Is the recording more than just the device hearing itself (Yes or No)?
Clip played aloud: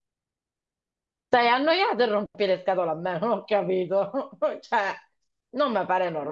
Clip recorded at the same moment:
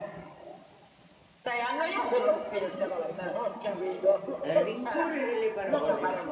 Yes